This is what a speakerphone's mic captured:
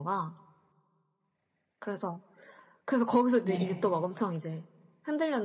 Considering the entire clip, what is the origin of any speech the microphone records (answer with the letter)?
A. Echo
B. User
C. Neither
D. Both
D